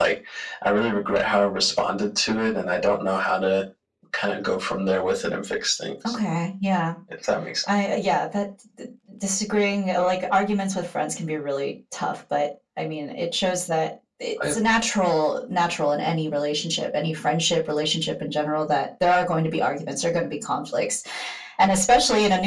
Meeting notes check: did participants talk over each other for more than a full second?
No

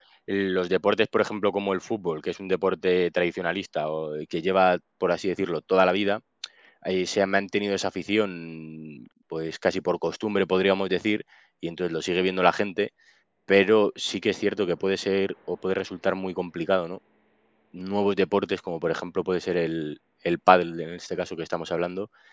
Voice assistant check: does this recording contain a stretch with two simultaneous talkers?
No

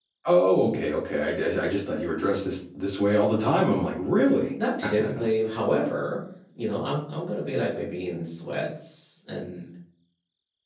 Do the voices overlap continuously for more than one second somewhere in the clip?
No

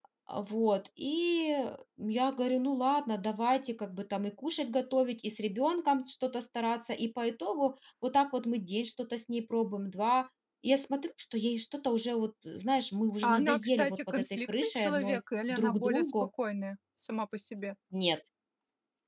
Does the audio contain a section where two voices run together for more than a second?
Yes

